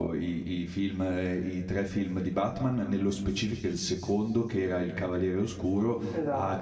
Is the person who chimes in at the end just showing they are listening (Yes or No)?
Yes